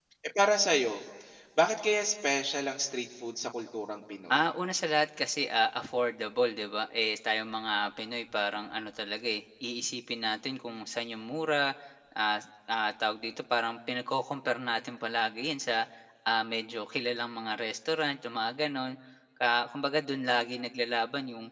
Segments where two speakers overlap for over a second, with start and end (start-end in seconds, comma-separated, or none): none